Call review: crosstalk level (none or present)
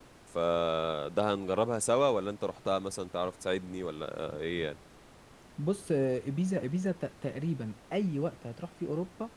none